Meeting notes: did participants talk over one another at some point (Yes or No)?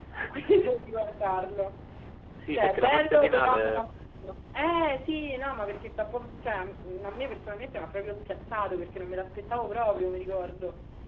Yes